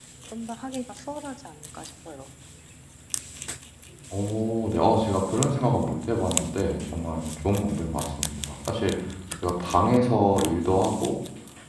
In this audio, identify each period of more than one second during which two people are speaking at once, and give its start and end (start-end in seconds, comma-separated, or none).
none